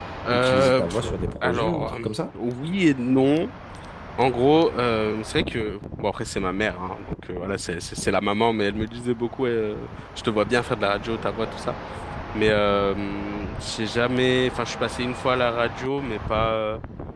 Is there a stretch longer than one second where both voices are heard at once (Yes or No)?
Yes